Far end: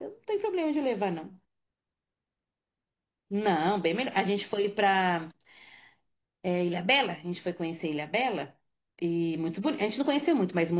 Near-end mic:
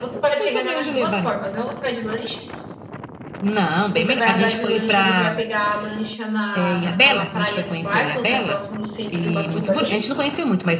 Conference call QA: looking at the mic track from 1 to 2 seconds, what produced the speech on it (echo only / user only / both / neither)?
both